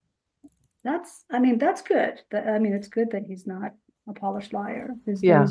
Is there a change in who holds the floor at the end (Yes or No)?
No